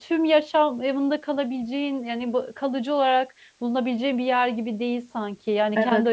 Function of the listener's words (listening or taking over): taking over